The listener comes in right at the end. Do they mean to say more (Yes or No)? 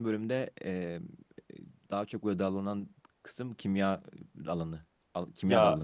Yes